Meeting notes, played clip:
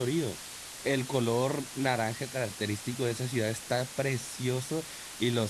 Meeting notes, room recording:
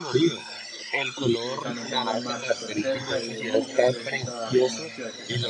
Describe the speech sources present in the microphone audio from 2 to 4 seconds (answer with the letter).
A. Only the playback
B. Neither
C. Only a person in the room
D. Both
D